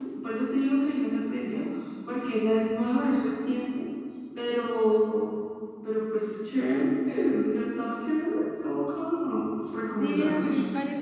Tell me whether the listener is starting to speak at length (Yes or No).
Yes